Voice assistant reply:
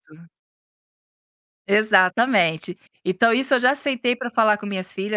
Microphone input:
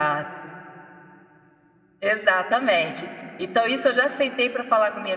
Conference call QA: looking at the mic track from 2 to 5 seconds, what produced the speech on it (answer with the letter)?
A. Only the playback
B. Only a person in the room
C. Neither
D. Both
A